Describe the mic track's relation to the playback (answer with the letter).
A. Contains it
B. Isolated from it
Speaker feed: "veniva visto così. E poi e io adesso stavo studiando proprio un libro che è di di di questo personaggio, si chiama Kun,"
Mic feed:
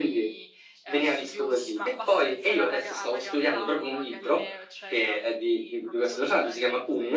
A